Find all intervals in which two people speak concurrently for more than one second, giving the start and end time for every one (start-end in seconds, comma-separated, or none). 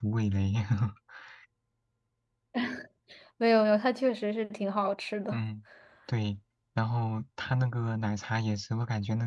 none